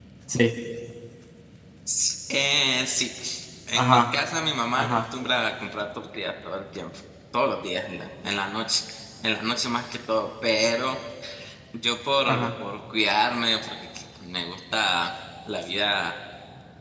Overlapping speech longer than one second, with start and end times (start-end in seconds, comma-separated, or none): none